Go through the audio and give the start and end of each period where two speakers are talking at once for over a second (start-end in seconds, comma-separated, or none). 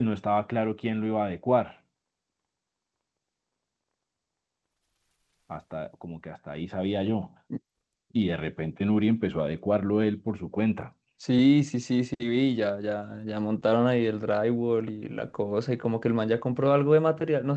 none